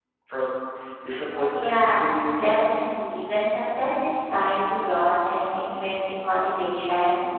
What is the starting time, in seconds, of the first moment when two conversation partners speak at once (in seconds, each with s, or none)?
1.3 s